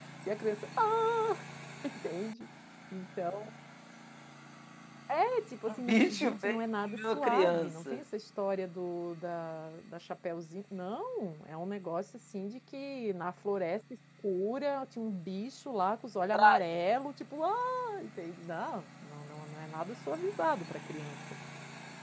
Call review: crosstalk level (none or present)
present